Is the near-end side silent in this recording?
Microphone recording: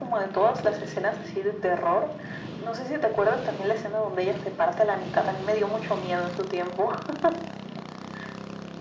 Yes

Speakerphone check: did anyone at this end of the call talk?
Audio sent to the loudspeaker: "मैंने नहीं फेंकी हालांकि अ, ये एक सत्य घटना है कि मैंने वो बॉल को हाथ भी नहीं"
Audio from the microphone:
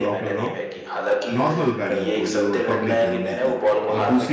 Yes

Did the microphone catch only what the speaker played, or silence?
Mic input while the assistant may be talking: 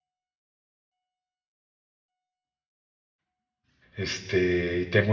No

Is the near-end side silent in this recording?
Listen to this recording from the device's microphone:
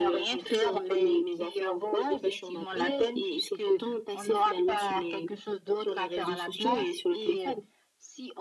Yes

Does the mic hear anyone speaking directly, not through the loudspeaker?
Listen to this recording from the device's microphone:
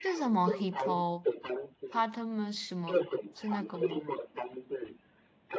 Yes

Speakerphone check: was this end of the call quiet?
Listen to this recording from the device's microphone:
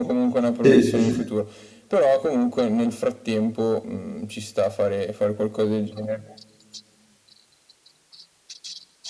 No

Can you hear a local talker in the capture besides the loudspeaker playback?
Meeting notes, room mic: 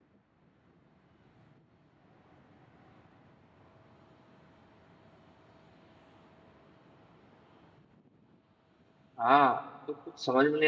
Yes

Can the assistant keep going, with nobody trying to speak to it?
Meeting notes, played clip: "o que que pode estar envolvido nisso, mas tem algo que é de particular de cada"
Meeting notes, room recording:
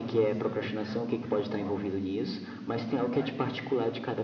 No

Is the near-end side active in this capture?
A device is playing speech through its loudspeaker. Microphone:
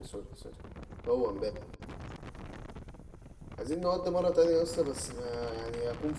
Yes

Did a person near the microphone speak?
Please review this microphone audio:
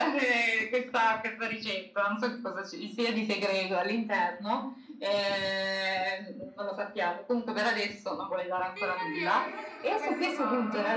Yes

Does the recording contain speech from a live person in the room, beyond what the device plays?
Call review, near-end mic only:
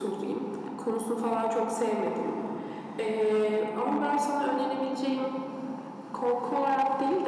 No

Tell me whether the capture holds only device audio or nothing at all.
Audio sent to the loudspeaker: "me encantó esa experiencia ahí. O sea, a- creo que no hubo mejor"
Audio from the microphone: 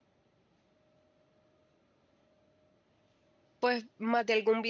No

